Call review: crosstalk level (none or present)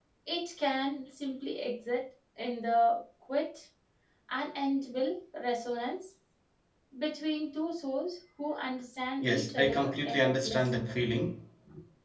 present